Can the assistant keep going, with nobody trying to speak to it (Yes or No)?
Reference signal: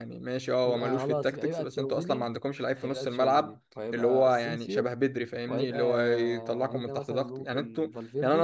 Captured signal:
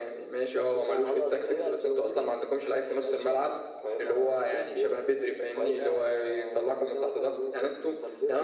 Yes